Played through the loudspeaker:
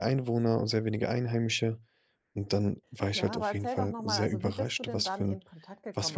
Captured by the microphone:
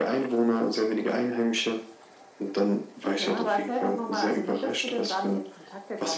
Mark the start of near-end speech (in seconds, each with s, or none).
none